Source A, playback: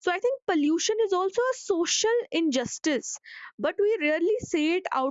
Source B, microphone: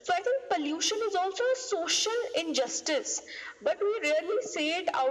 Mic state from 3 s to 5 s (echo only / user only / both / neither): echo only